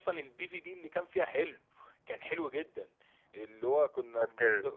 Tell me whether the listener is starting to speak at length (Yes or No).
No